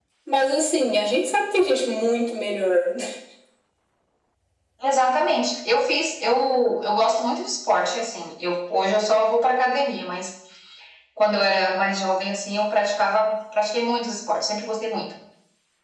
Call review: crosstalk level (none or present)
none